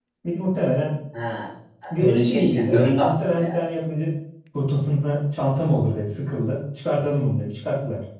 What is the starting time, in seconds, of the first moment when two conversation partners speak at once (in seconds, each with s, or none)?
2.0 s